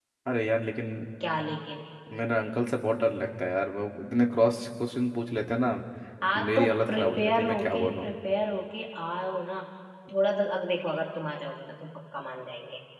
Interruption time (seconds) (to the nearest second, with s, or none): 6 s